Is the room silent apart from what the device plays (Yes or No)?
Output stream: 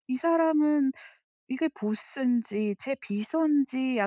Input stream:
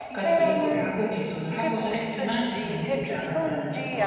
No